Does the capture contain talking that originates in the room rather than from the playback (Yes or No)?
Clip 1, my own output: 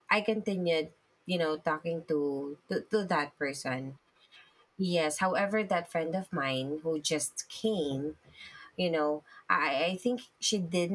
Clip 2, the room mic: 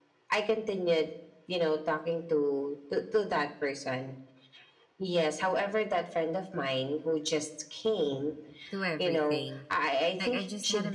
Yes